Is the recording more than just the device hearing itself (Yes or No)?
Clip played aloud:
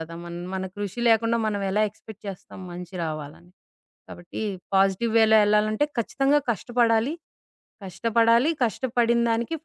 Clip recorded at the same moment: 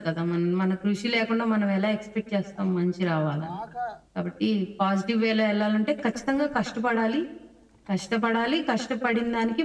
Yes